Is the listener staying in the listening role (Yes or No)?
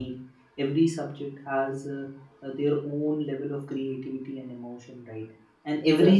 Yes